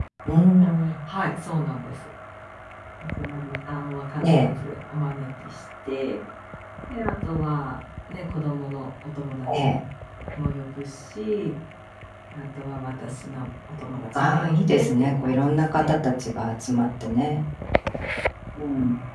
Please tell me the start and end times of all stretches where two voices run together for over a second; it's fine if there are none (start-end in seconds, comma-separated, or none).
14.1-16.0